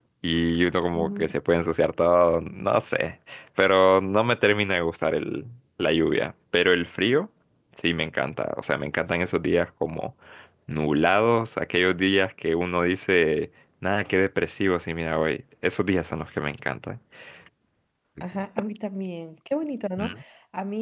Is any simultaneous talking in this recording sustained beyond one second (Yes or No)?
No